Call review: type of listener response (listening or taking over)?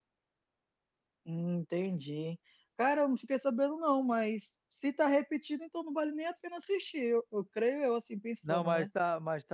taking over